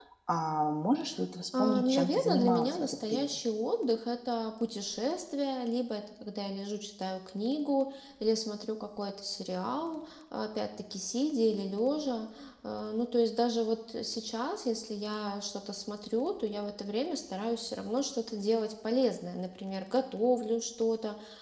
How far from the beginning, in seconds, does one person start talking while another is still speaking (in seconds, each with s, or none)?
1.5 s